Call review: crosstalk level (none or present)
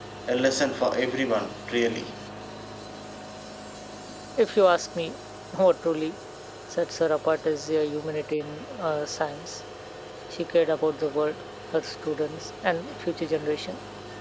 none